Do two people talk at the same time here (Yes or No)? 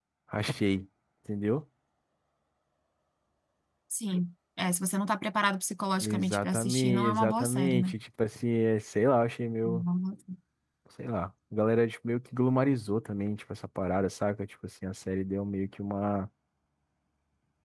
Yes